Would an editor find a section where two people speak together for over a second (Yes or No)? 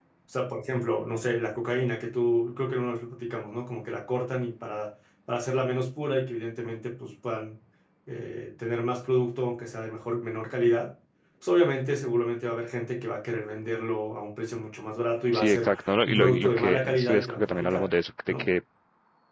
Yes